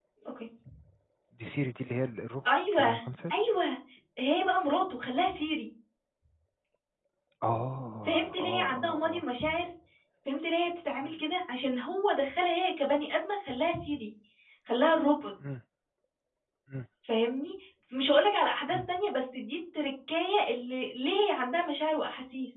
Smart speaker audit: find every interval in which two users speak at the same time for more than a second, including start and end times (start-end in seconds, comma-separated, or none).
8.1-9.3